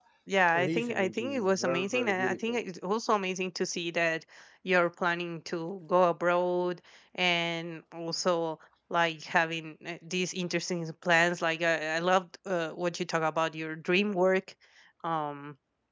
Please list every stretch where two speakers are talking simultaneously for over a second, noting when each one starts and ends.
0.5-2.6

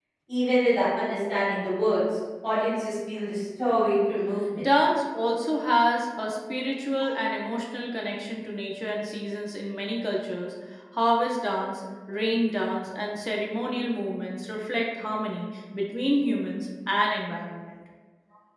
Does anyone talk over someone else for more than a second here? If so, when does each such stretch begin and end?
none

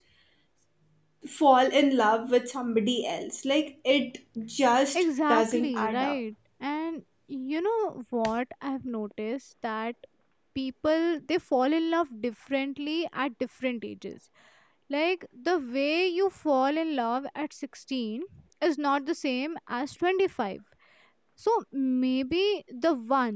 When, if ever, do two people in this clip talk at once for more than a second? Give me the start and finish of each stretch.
4.9-6.2

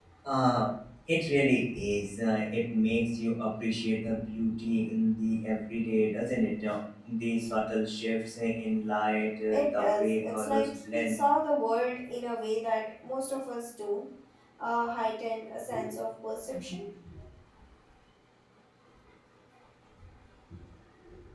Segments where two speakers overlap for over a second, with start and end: 9.5-11.2

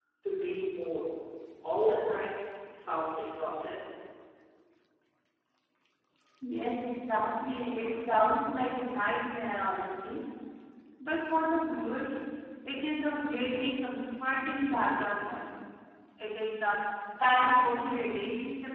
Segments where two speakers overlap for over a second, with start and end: none

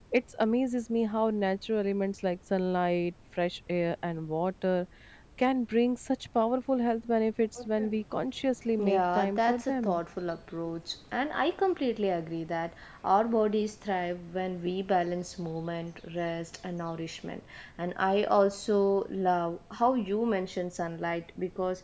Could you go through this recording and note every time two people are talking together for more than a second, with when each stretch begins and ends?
8.8-10.0

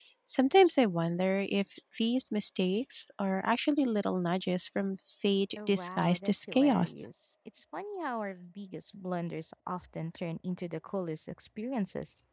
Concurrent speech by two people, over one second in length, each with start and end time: 5.6-6.9

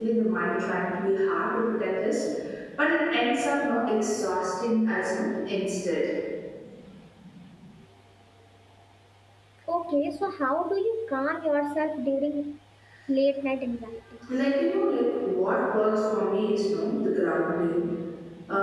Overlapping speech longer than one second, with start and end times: none

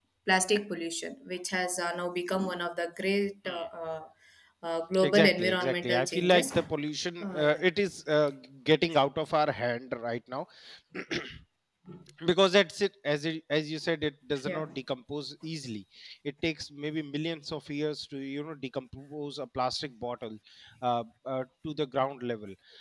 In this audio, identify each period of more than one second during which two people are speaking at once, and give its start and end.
5.1-6.5

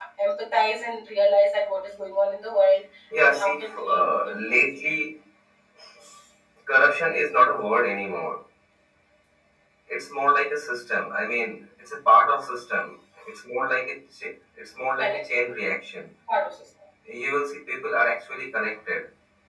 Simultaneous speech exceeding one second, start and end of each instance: 3.2-4.6

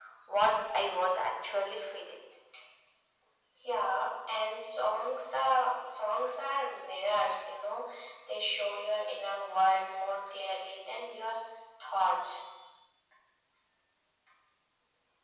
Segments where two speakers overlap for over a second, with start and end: none

